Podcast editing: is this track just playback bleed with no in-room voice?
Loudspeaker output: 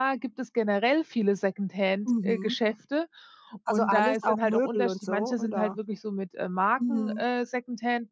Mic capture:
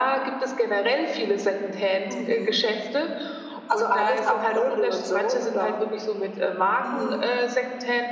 Yes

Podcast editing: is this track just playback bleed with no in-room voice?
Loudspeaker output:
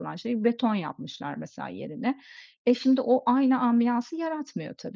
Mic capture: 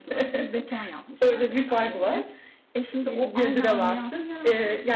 No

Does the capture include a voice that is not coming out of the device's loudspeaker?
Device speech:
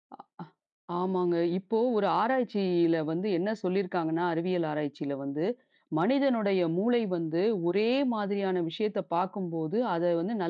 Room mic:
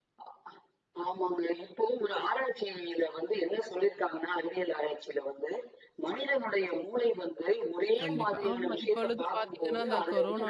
Yes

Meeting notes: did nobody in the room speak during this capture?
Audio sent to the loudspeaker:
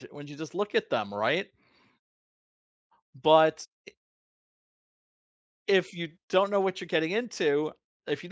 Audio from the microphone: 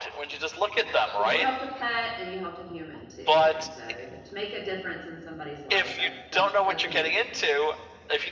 No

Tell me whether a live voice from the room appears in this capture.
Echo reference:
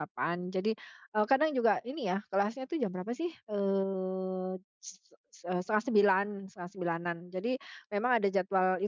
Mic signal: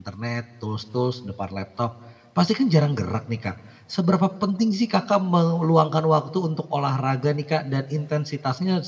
Yes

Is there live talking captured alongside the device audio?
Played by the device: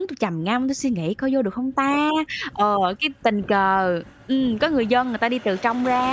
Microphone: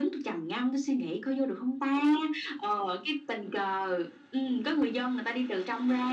No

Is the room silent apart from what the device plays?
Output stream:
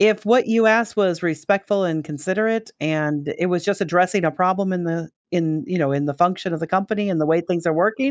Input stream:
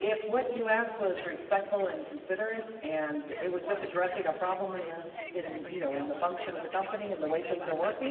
No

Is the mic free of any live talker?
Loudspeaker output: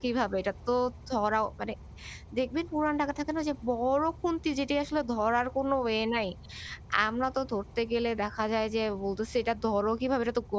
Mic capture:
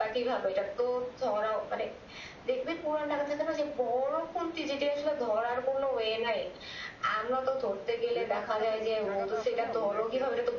No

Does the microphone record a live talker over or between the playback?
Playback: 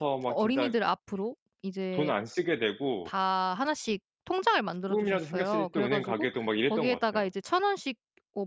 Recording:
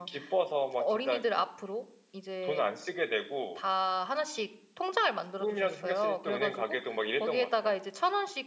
No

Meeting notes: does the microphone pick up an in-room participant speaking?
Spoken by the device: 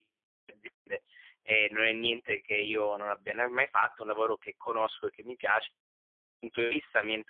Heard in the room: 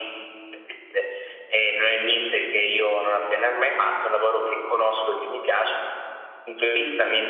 No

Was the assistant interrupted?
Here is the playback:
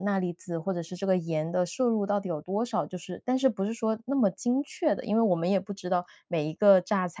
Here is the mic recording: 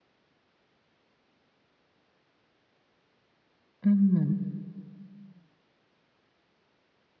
Yes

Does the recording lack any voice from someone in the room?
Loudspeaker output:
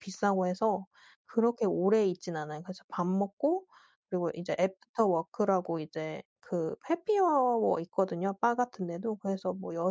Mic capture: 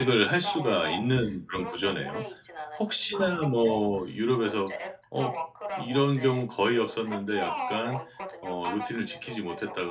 No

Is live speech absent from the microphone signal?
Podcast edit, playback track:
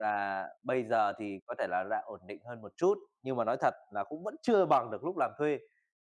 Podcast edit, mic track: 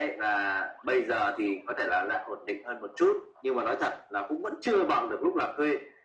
Yes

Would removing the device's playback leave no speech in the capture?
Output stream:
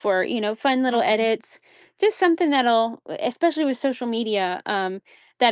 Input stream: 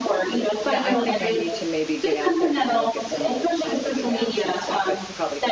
No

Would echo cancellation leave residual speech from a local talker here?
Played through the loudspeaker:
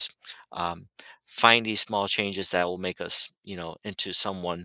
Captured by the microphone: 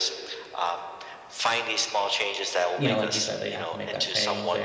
Yes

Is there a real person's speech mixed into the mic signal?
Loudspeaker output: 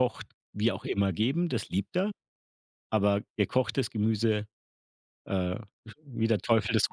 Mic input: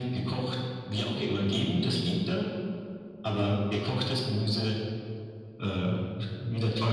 No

